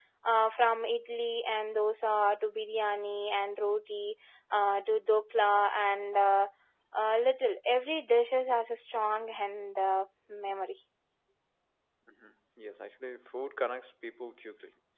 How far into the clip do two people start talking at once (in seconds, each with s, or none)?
none